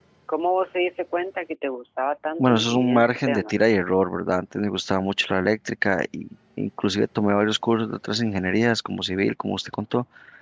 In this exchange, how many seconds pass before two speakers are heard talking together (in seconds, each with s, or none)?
2.4 s